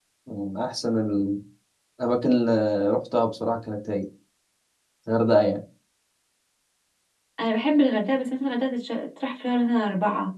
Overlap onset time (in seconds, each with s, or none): none